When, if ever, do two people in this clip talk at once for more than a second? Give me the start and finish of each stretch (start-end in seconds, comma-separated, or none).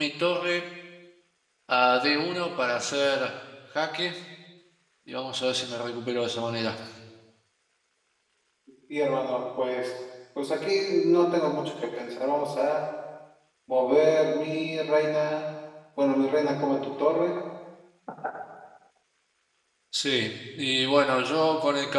none